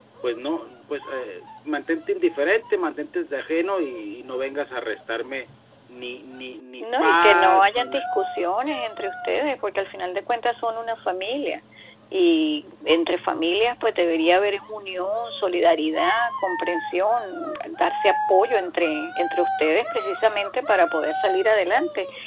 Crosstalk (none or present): present